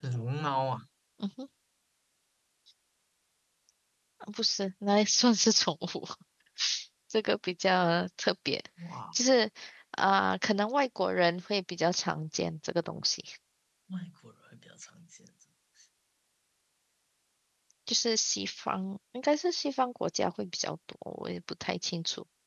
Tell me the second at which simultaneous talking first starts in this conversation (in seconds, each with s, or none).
none